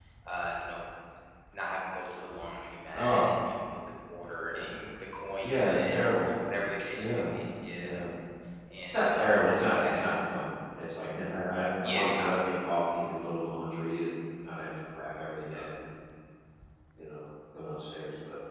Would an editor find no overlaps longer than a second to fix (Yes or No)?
No